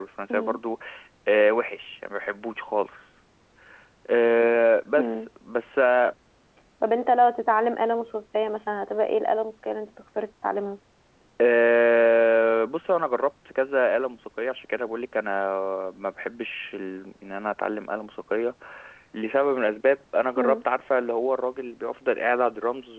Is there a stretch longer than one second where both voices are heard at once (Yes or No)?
No